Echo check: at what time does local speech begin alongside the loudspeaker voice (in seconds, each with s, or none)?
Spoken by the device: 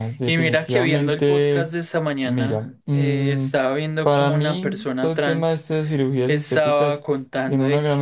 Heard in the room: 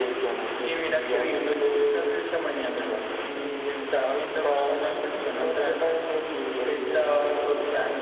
none